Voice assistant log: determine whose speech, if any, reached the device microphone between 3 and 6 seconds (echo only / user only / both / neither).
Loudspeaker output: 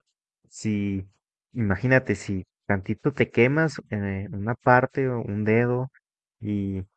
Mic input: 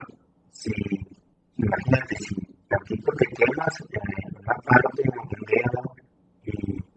echo only